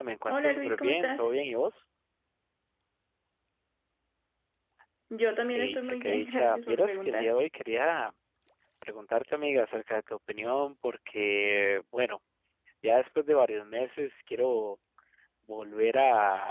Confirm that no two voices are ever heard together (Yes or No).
No